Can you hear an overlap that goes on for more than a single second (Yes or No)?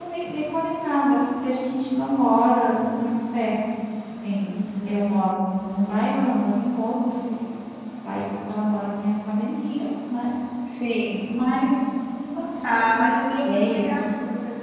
Yes